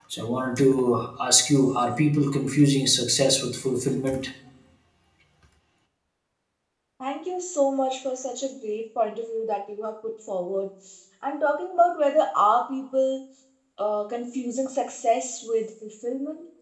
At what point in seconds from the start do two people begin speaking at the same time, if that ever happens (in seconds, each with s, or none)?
none